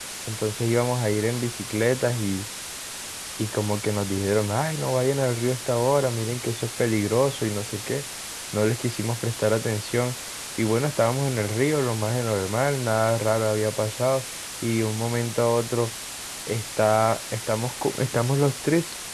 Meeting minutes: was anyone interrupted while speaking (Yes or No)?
No